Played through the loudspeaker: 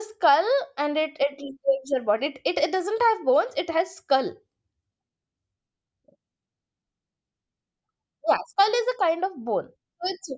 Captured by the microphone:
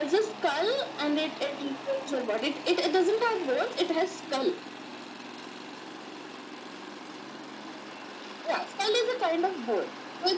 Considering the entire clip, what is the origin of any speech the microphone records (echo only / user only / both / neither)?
echo only